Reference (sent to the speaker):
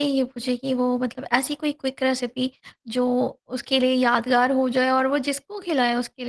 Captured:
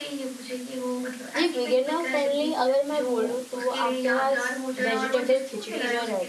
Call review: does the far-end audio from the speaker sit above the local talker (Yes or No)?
No